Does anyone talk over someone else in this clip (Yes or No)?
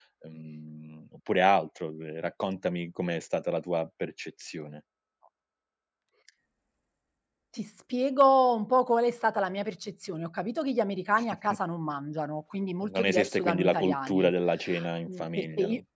Yes